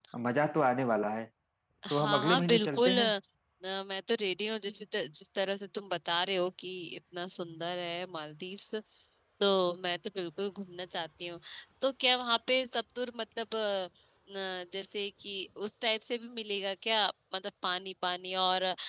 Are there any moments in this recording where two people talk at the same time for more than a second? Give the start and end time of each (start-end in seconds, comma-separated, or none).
1.9-3.1